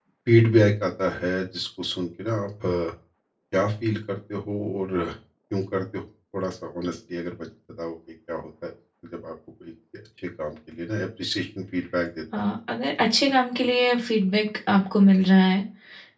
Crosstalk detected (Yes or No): No